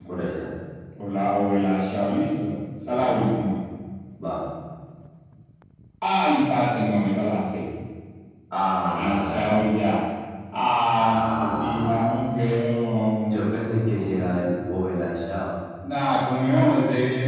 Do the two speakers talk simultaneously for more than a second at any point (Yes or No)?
Yes